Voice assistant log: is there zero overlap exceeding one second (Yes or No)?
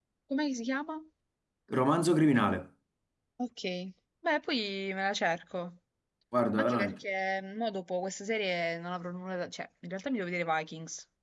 Yes